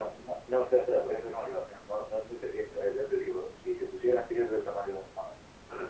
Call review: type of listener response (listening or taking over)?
taking over